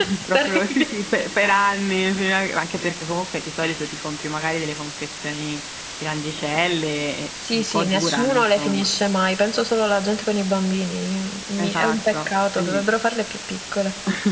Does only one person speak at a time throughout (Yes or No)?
No